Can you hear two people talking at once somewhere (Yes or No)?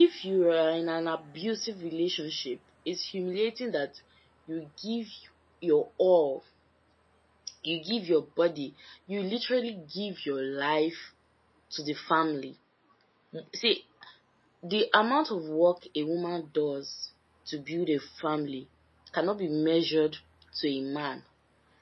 No